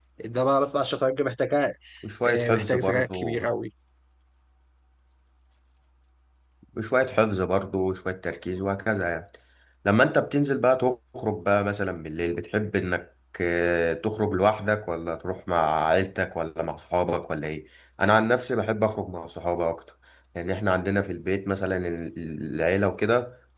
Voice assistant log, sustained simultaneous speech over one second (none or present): present